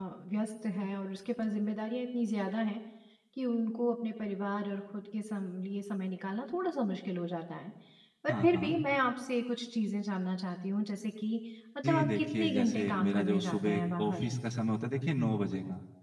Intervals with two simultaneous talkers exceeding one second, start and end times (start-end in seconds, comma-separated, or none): 11.8-14.2